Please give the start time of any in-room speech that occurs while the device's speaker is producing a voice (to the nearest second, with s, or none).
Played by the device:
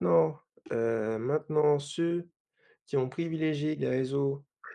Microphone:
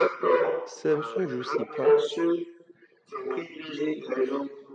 1 s